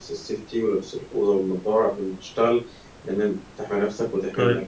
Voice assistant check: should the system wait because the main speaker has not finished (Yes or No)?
No